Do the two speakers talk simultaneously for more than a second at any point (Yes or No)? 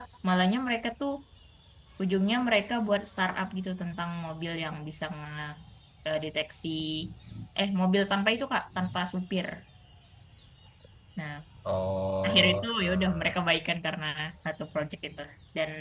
Yes